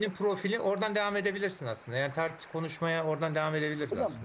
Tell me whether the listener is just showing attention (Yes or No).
No